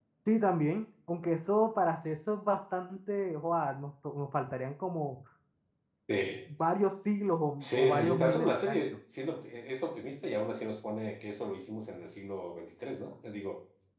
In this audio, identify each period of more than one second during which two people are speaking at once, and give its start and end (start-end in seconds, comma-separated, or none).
7.6-9.0